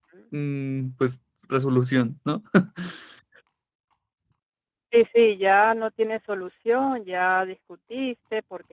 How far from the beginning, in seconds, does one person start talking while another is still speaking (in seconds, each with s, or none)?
none